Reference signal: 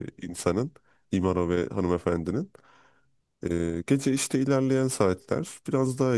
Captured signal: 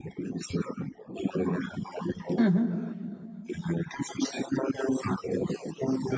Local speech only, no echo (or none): Hı hı.